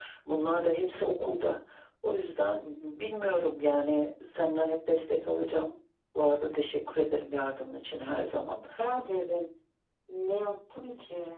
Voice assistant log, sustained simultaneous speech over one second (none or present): none